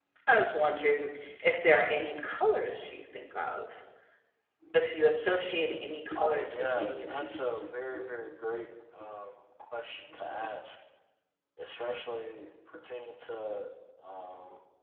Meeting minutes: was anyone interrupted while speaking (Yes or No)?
Yes